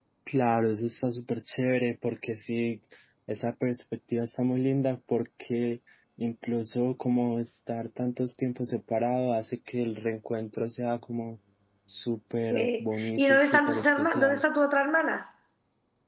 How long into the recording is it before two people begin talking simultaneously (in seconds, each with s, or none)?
12.5 s